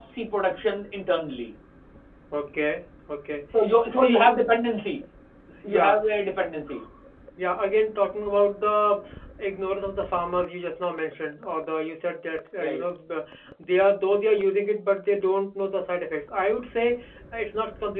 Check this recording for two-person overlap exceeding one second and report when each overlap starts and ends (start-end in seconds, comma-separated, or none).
none